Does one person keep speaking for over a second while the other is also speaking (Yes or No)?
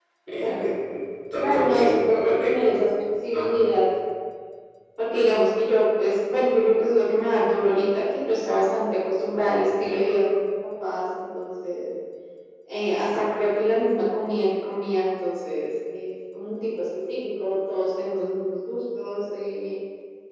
Yes